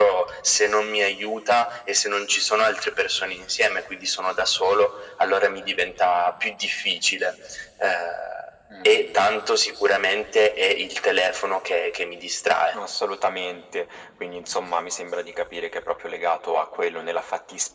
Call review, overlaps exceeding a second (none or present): none